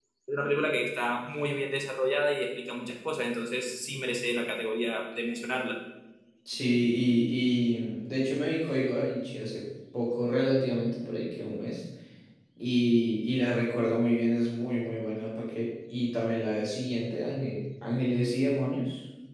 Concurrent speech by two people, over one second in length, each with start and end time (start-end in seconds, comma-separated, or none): none